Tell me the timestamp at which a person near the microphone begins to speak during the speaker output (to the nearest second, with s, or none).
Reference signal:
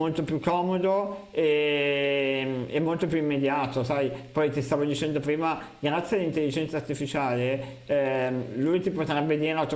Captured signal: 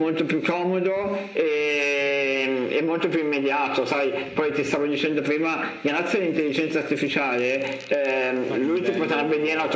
8 s